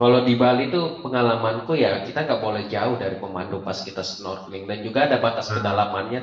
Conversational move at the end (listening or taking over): listening